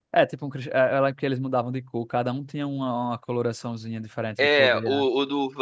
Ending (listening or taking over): taking over